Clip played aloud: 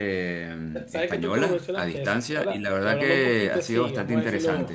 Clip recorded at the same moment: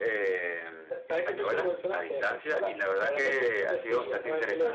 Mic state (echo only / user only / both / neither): echo only